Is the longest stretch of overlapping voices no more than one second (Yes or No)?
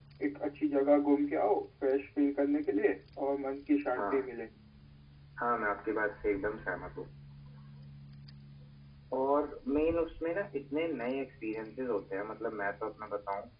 Yes